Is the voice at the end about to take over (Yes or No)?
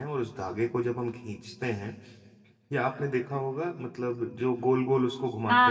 Yes